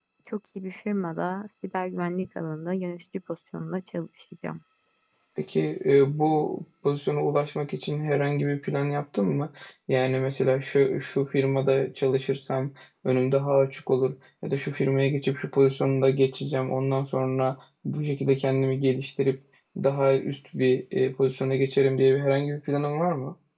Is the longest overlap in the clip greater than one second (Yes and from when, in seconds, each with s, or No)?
No